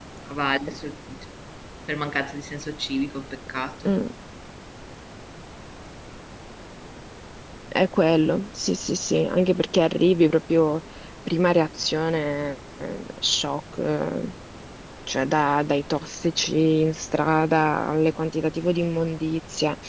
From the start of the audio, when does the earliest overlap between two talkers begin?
none

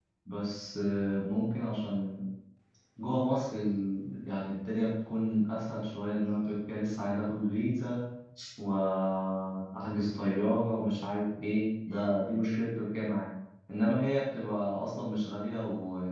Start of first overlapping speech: none

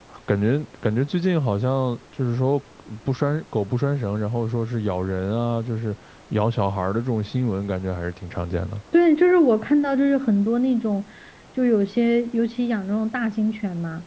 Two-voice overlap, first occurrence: none

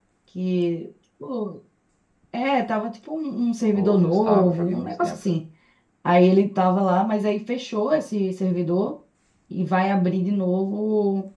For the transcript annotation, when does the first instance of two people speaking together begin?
3.7 s

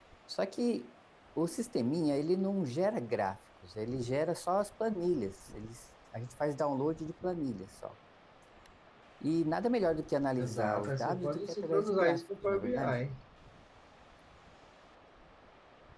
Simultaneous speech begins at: 10.4 s

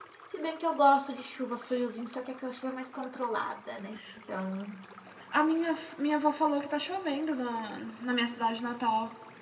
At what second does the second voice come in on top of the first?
none

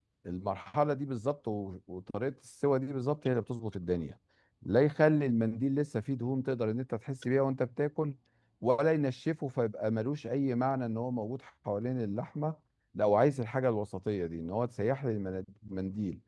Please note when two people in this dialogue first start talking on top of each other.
none

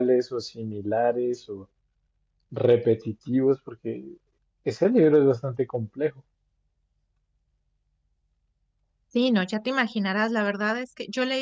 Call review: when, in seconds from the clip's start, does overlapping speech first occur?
none

